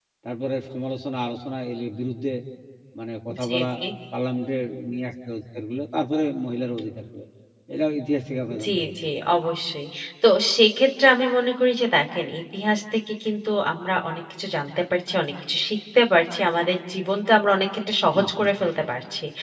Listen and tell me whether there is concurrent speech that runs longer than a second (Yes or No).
No